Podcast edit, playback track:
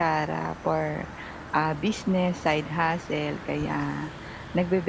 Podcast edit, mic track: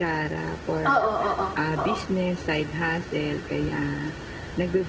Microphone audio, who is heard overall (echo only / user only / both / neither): both